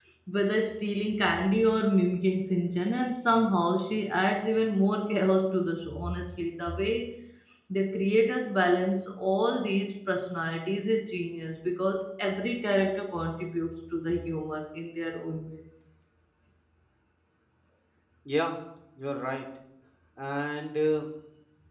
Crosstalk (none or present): none